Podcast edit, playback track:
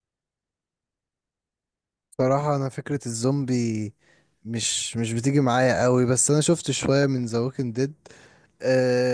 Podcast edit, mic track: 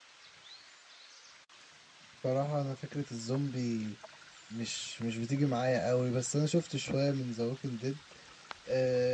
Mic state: echo only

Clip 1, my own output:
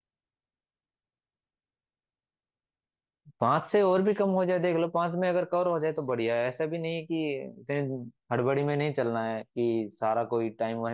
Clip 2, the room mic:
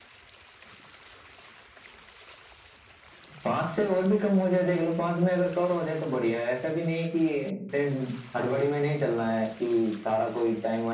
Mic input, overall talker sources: echo only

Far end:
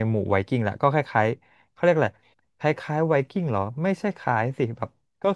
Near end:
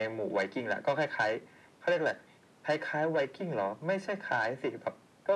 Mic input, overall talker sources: echo only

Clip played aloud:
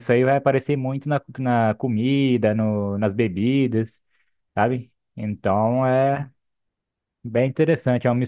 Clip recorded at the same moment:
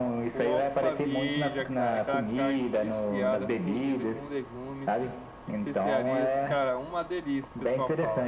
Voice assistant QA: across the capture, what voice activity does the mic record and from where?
both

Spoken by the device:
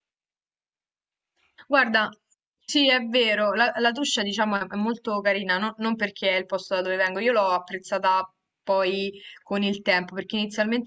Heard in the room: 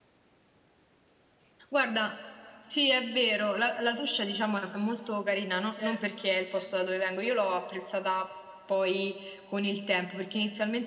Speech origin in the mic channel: both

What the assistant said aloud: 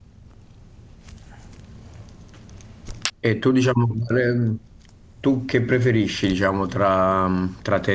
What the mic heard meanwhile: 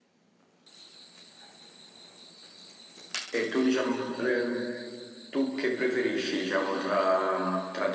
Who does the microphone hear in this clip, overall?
echo only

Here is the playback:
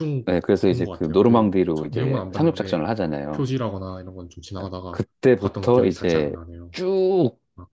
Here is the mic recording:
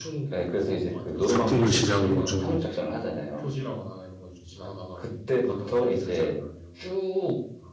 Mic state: both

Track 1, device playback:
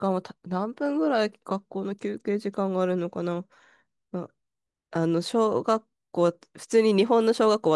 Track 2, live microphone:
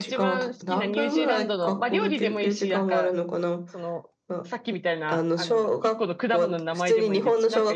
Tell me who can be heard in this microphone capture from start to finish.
both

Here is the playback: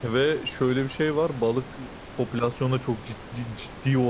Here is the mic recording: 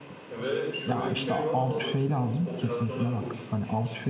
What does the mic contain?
both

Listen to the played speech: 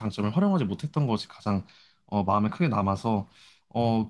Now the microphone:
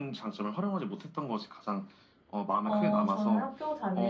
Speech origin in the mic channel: both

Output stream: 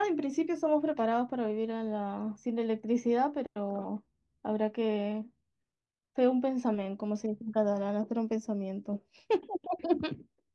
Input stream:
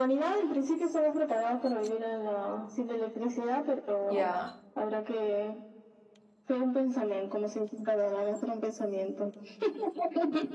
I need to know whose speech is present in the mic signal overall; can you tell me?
both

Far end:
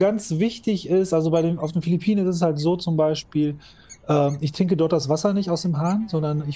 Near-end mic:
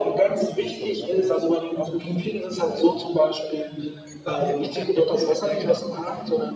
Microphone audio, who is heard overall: both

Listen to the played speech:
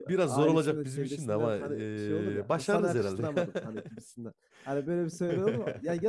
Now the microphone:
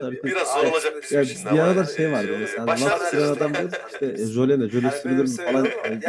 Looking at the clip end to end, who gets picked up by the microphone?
both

